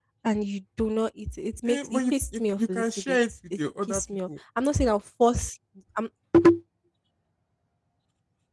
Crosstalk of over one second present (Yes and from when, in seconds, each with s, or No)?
Yes, from 1.7 s